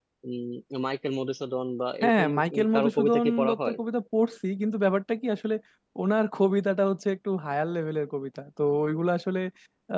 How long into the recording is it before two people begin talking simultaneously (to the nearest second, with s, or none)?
2 s